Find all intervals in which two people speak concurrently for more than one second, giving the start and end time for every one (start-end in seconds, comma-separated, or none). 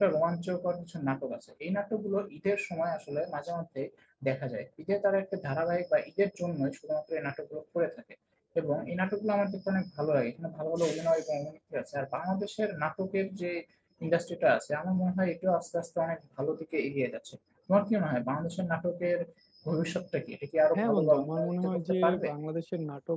20.8-22.3